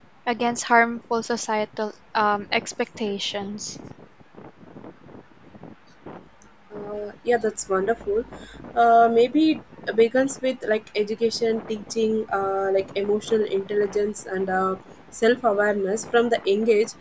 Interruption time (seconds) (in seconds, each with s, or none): none